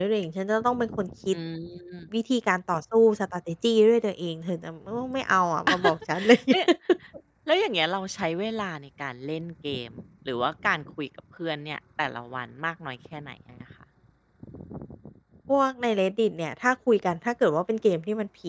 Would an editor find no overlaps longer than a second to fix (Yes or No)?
Yes